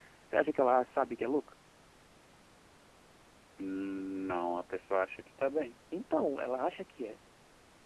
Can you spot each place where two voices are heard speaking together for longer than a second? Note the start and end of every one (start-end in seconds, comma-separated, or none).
none